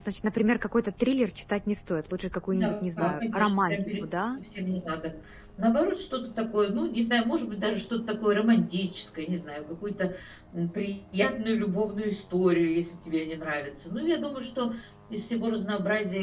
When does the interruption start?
2.5 s

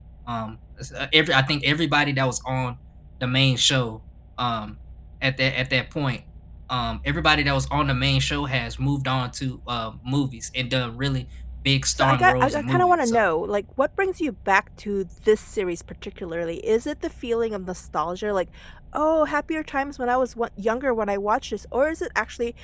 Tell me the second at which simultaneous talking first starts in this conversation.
11.9 s

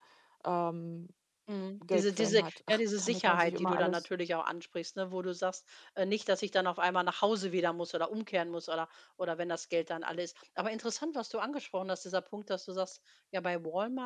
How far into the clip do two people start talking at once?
1.9 s

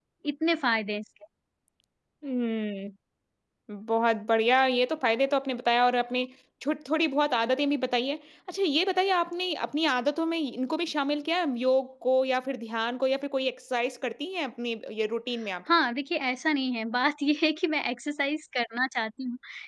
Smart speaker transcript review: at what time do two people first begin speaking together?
none

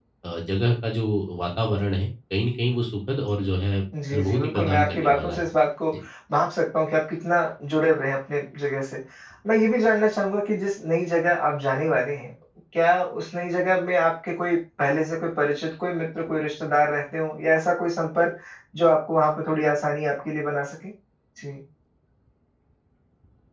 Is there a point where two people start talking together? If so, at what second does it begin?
3.9 s

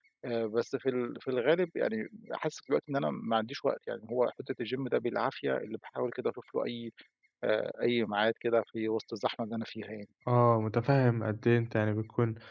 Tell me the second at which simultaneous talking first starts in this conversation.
none

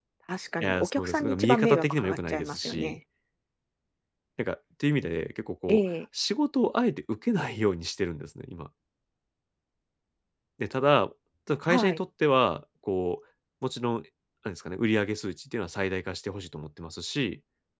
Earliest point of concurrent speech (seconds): 0.6 s

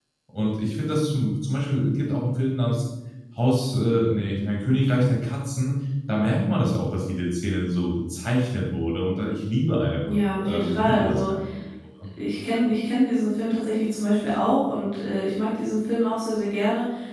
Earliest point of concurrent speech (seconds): 10.0 s

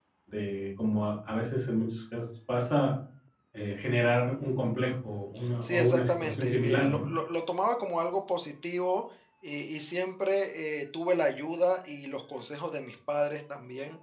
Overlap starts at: 5.4 s

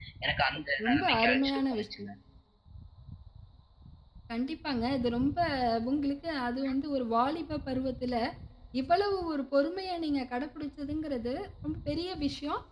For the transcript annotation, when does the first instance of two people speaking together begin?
0.8 s

